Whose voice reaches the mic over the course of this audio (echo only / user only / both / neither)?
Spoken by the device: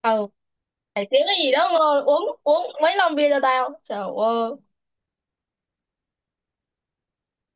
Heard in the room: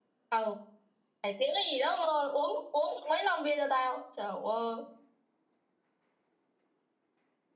echo only